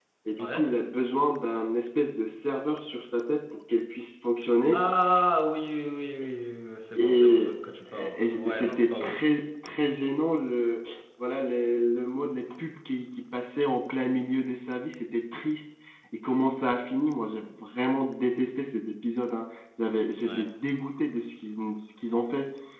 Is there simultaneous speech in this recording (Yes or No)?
Yes